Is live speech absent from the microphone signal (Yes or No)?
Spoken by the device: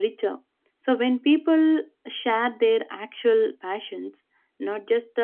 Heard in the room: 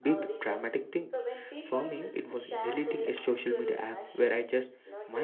No